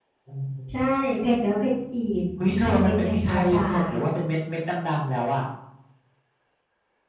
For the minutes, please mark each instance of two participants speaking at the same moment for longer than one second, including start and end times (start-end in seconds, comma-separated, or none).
2.4-3.6